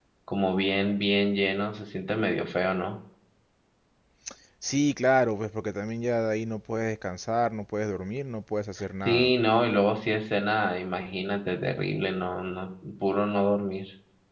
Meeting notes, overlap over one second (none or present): none